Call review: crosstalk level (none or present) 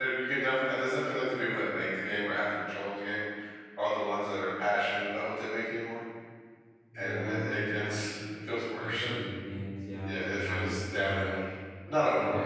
present